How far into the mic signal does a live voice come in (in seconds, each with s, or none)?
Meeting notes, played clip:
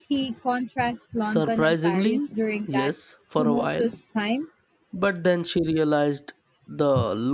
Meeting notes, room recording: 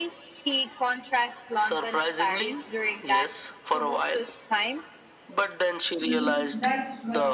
5.8 s